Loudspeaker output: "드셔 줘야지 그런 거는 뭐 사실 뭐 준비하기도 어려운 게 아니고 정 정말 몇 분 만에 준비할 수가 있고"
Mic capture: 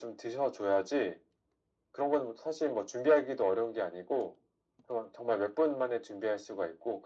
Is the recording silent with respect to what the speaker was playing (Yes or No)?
No